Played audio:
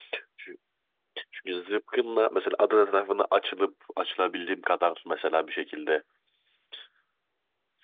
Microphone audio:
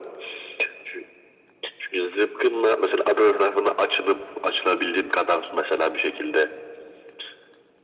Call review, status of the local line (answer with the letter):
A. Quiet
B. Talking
A